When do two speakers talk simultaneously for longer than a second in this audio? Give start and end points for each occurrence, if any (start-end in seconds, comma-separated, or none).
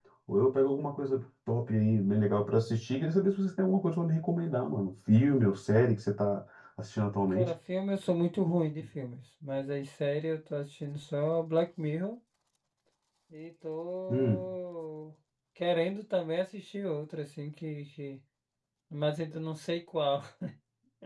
none